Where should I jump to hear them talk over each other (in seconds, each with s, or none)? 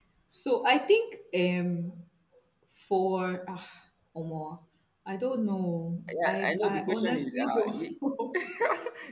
6.1 s